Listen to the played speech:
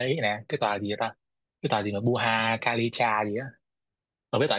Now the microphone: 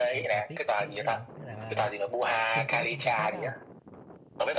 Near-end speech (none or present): present